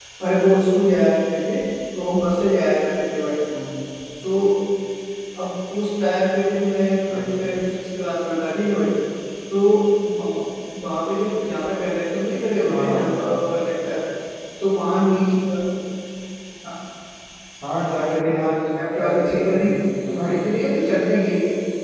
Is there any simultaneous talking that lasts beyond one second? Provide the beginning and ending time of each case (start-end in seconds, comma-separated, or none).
17.8-19.6